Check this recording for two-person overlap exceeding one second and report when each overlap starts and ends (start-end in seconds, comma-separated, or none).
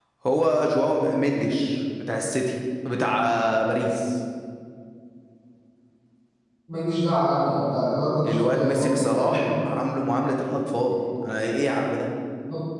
8.3-9.5